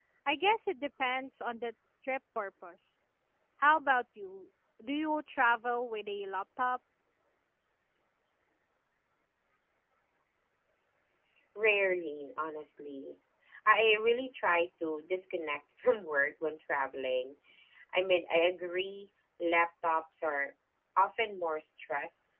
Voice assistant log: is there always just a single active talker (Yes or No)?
Yes